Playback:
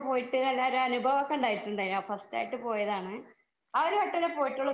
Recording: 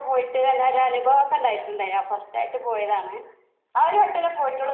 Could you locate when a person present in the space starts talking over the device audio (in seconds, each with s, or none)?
none